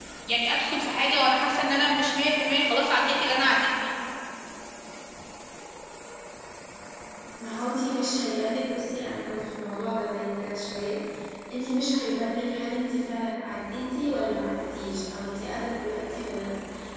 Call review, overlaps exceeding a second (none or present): none